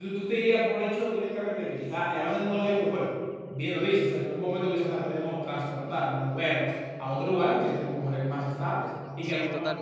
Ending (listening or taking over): taking over